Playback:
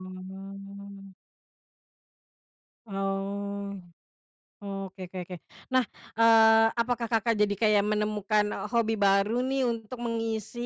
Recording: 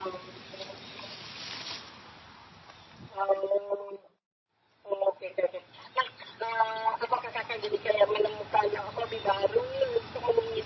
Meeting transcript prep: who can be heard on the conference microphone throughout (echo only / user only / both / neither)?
echo only